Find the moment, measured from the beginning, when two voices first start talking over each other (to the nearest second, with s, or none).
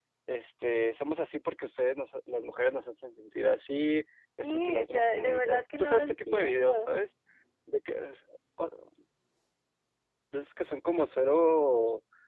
4 s